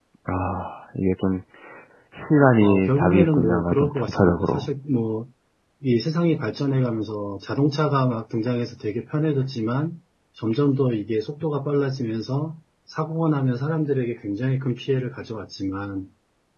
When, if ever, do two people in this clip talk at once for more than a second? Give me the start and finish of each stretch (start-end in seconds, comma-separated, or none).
2.6-4.7